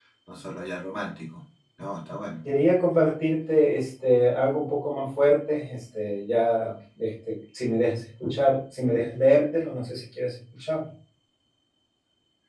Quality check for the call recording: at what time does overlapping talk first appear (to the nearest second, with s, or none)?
none